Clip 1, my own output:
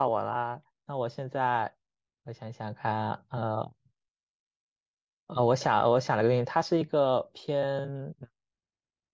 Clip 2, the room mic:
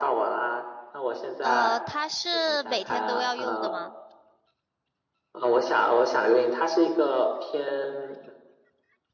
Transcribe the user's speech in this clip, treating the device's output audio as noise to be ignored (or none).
呃，它是每天都要用的吗？